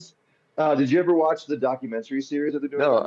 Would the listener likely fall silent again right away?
No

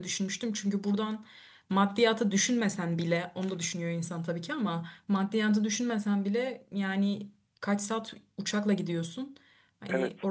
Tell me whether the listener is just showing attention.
Yes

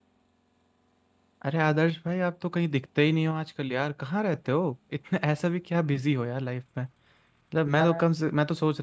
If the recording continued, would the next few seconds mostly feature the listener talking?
No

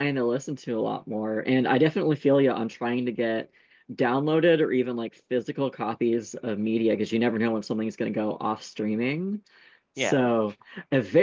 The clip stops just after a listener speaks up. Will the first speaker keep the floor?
Yes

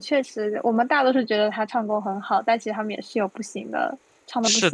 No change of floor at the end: No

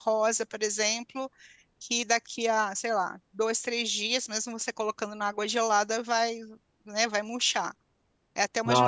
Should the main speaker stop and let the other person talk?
No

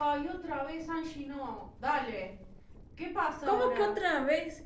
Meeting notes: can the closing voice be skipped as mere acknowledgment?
No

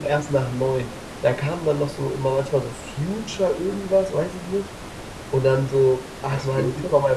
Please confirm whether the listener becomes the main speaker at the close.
No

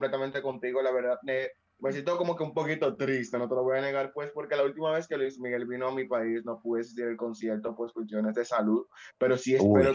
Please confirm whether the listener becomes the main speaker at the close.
No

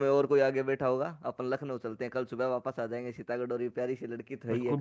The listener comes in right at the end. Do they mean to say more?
Yes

